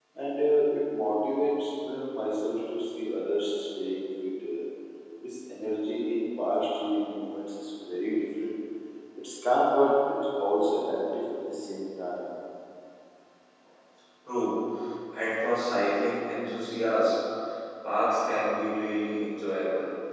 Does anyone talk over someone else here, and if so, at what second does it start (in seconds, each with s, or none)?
none